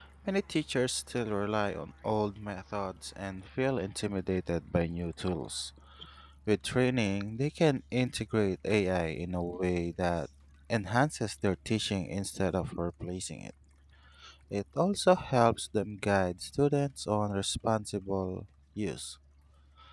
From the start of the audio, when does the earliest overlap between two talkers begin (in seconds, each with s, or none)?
none